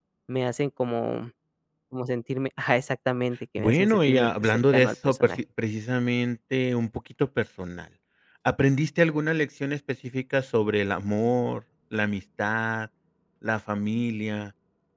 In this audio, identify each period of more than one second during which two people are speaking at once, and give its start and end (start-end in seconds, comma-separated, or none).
3.6-5.4